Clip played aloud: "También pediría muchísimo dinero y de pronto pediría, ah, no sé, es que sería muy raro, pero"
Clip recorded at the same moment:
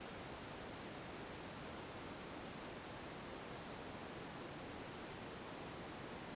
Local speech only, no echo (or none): none